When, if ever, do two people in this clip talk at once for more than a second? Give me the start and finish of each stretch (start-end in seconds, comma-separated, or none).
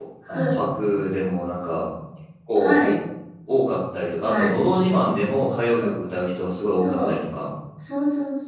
none